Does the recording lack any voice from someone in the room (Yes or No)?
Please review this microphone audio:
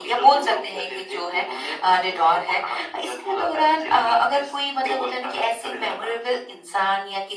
Yes